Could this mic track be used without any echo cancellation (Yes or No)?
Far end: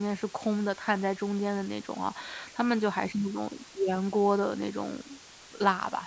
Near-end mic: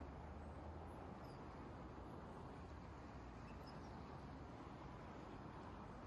Yes